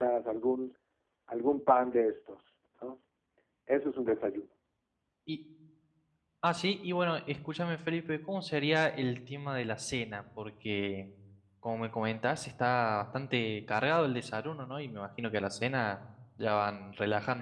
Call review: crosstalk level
none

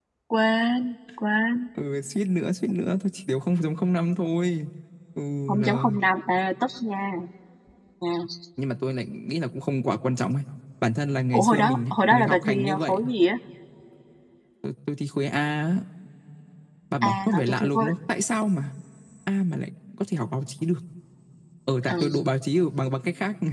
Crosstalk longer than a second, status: present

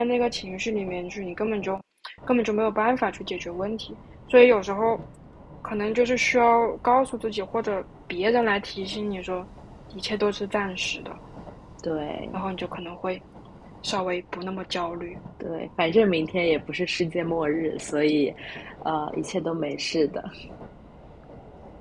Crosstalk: none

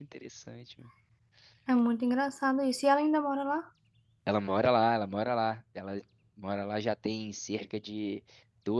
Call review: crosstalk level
none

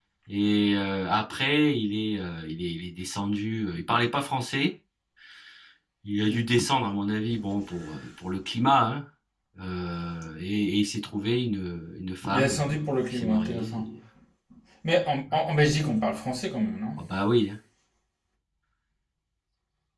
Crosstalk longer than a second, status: present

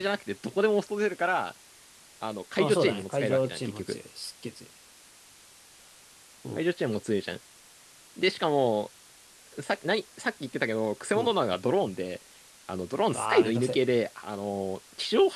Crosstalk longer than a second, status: present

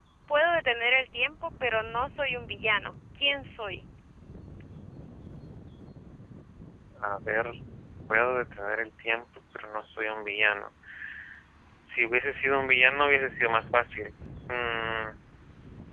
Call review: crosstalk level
none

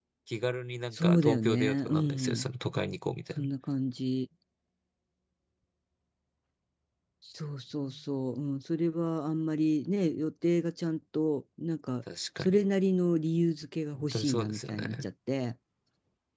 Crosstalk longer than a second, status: present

